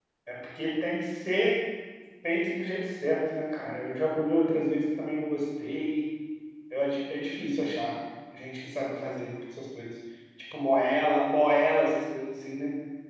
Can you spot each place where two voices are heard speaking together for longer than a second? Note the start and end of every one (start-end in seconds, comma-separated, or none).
none